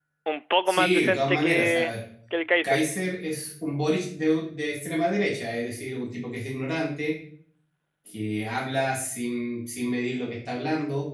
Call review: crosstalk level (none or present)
present